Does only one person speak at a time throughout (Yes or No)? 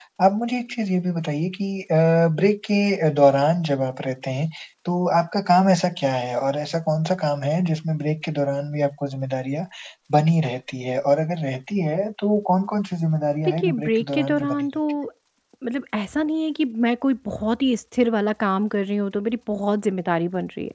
No